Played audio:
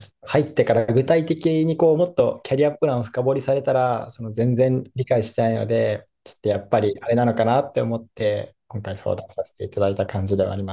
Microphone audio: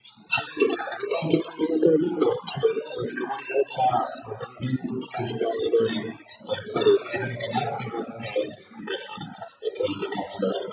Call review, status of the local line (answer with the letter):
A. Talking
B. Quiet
A